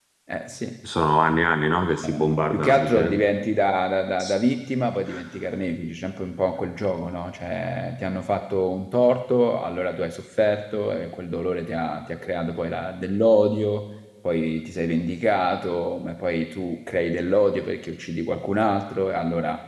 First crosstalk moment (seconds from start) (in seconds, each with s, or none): 2.0 s